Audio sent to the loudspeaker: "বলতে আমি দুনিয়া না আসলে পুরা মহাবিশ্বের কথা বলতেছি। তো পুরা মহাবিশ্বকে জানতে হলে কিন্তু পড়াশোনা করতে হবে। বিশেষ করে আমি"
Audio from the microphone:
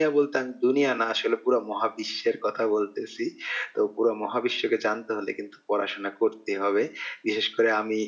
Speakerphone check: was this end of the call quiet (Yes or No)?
Yes